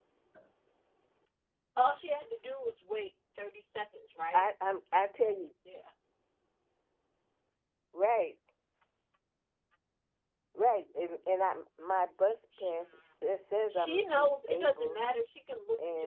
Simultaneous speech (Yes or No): Yes